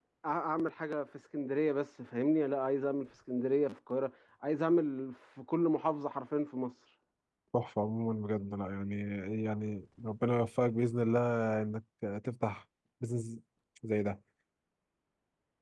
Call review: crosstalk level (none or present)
none